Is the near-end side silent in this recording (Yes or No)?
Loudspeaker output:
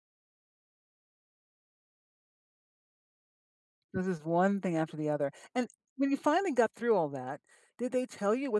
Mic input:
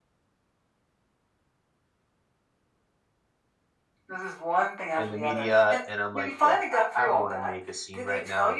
No